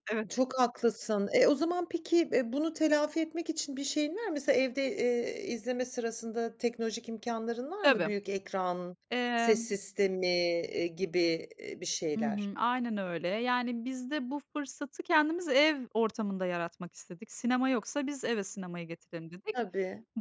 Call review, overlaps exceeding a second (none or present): none